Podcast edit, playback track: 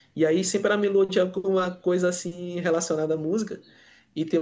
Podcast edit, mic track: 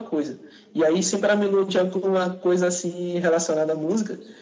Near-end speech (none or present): none